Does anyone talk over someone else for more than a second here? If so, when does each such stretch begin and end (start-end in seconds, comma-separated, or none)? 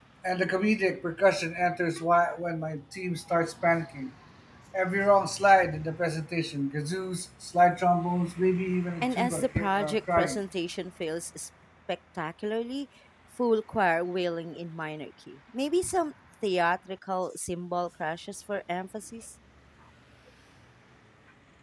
9.0-10.4